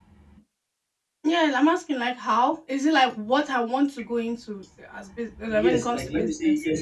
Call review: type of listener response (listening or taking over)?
taking over